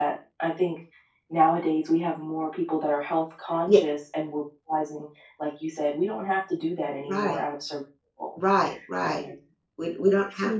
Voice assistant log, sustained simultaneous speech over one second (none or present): none